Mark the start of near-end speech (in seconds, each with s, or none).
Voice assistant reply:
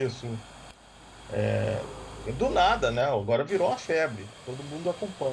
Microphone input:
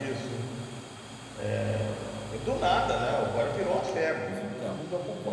4.2 s